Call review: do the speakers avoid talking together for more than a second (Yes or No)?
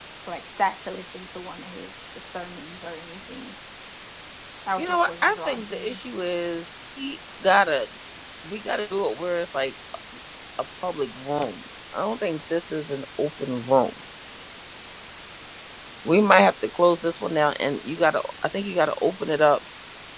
No